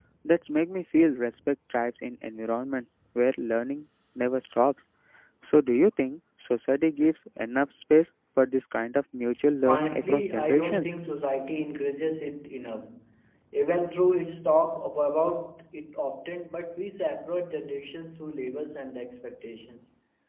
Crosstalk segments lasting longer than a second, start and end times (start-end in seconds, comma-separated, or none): 9.7-10.9